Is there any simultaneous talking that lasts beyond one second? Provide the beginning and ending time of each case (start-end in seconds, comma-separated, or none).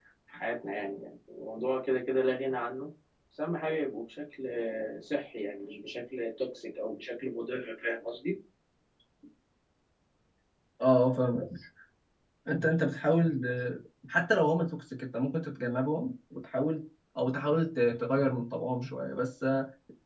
none